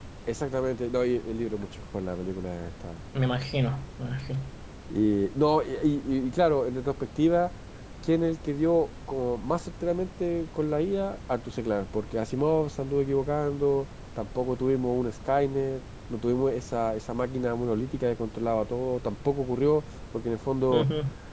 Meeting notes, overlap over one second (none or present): none